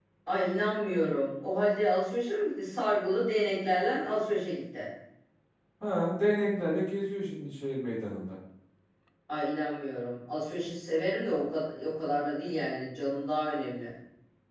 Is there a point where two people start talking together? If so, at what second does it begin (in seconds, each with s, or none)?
none